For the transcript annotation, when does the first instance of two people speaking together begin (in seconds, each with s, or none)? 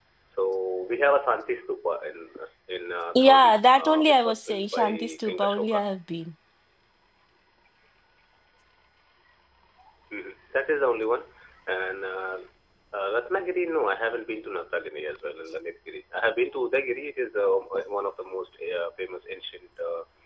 3.1 s